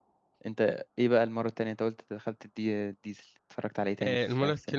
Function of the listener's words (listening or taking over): taking over